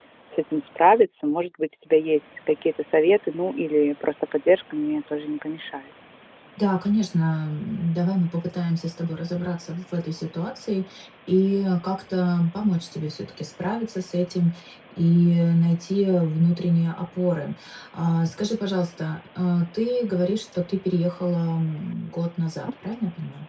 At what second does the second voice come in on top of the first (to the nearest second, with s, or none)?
none